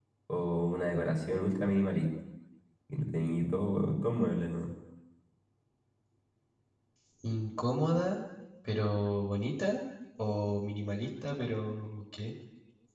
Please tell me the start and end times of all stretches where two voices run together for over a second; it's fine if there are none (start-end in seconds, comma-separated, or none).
none